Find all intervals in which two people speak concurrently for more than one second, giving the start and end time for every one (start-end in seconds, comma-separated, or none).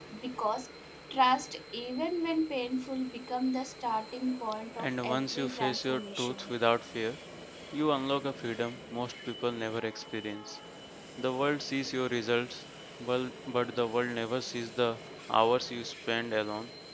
4.8-6.5